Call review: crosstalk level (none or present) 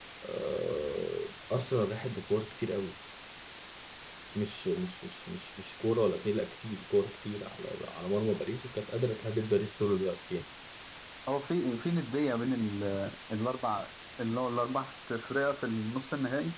none